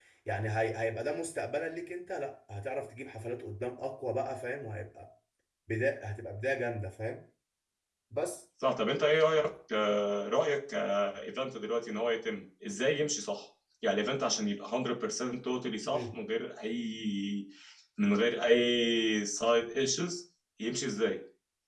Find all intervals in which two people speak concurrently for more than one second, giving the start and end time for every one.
none

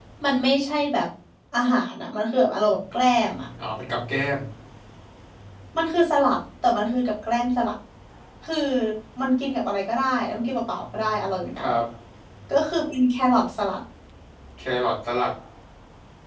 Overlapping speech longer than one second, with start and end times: none

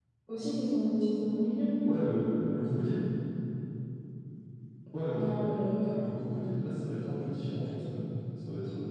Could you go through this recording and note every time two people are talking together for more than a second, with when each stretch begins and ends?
none

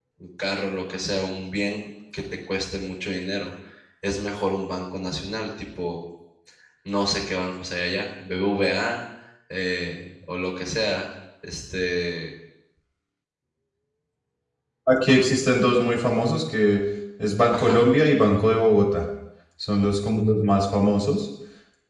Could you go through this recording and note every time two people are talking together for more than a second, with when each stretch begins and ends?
none

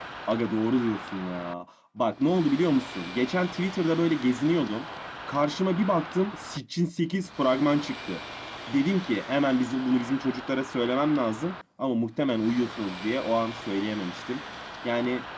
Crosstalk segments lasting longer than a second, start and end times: none

